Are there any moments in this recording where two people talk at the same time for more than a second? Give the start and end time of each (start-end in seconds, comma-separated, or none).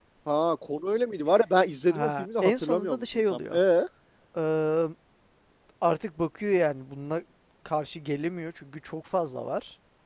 1.9-3.6